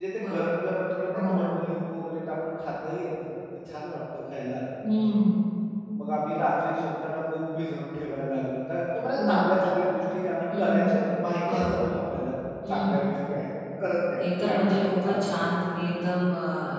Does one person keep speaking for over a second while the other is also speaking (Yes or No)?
Yes